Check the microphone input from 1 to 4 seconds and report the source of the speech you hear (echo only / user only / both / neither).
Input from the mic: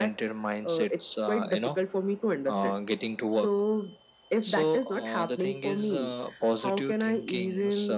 echo only